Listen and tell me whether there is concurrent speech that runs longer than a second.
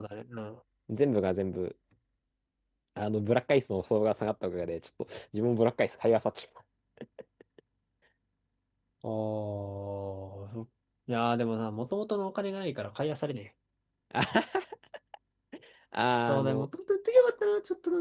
No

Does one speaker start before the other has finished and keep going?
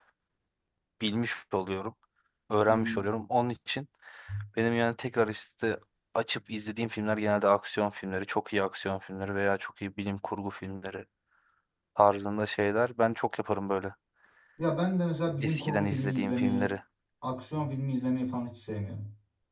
Yes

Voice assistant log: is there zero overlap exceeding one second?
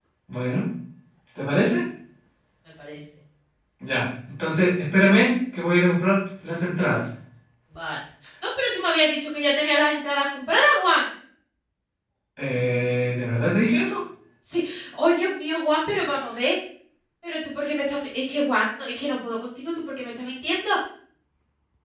Yes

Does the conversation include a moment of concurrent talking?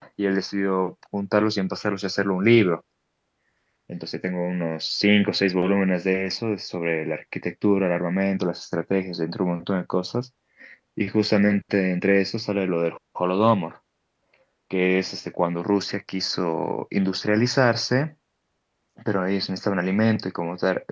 No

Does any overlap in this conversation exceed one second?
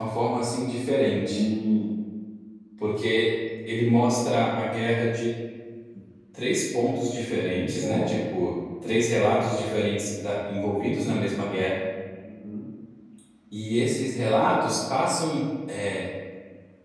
No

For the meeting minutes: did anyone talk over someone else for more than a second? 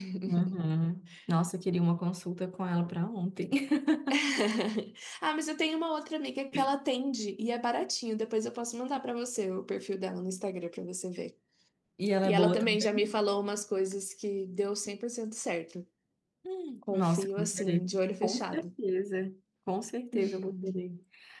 Yes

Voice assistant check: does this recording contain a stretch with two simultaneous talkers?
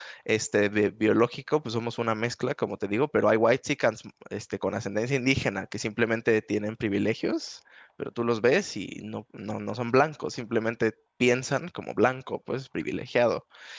No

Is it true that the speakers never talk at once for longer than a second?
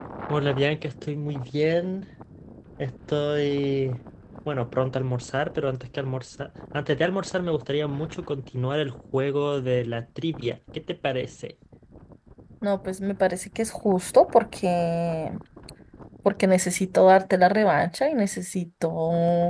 Yes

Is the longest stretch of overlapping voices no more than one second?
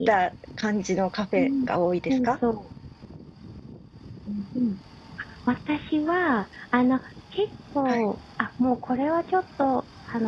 Yes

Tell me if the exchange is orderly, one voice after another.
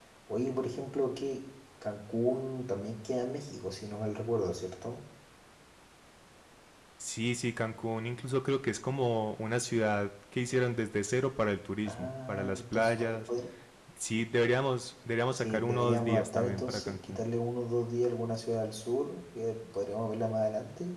No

